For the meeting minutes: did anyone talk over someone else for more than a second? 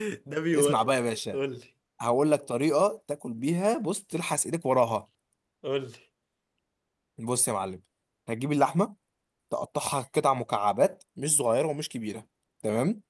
No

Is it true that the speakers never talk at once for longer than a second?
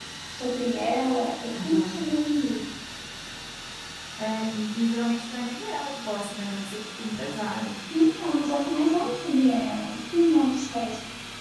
Yes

